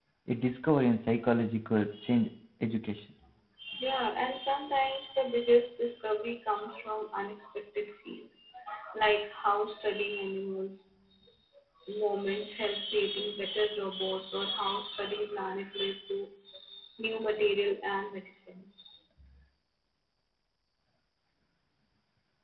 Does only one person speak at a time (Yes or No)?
Yes